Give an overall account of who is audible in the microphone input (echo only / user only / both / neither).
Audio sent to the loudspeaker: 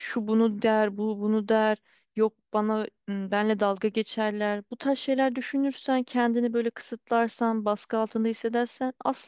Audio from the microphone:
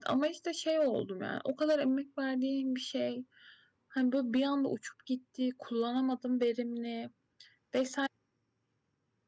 user only